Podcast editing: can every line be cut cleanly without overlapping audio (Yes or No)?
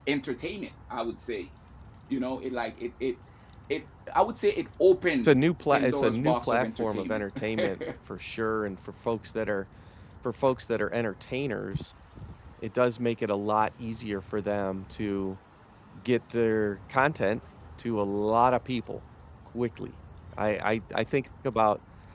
No